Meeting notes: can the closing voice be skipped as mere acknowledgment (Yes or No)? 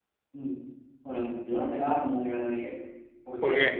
Yes